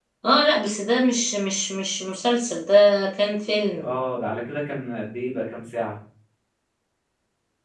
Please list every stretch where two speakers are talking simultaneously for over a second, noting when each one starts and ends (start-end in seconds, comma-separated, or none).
none